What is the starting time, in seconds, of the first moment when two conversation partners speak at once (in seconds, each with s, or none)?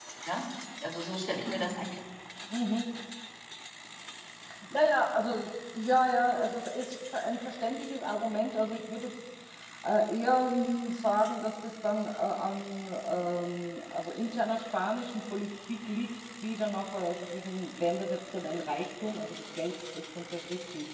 none